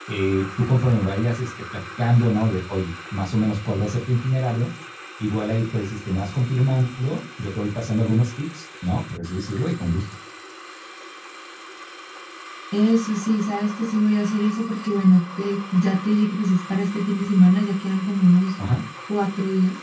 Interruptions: none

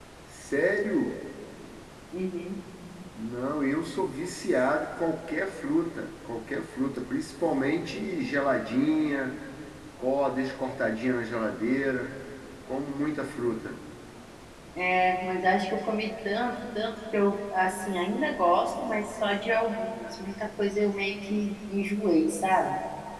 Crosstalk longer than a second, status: none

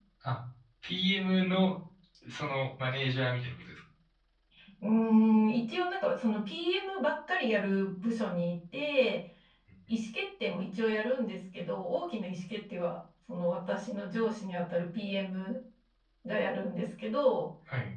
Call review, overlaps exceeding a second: none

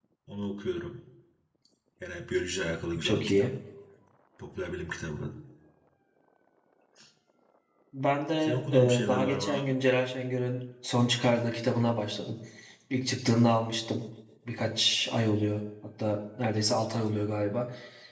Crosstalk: present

